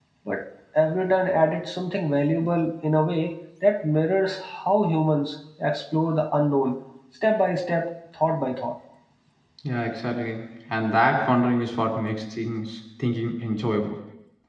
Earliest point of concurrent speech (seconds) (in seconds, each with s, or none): none